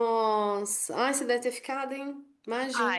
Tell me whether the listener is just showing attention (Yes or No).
No